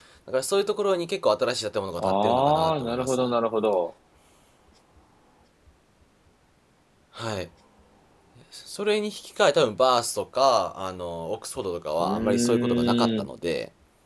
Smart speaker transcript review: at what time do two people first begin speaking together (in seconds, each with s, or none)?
2.0 s